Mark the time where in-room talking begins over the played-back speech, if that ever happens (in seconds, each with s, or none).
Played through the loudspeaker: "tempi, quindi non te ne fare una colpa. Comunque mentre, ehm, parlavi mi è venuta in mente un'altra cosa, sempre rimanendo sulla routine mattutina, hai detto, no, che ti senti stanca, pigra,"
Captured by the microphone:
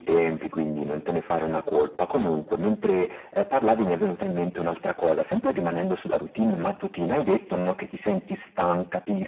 none